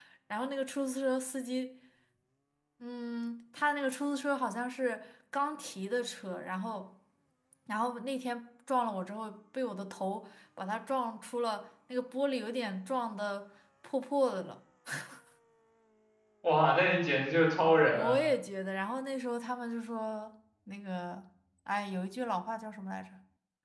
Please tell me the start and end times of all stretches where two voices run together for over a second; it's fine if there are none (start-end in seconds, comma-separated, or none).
none